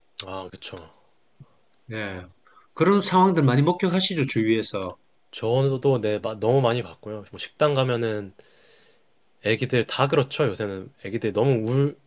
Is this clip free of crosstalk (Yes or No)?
Yes